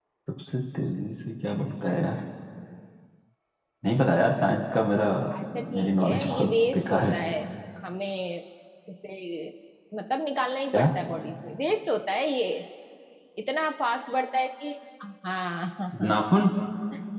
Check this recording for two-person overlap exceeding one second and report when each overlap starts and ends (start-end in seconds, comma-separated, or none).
5.8-7.2